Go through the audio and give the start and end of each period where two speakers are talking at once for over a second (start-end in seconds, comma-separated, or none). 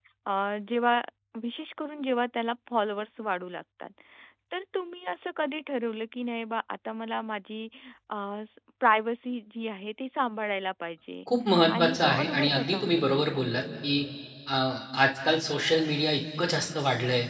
11.7-13.4